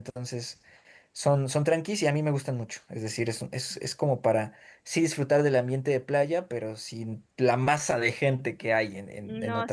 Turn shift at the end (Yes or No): Yes